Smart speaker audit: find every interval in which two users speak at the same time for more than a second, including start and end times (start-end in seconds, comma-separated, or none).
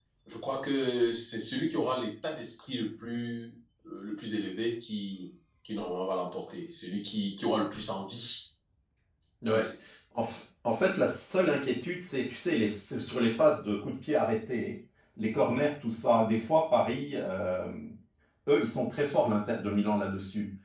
none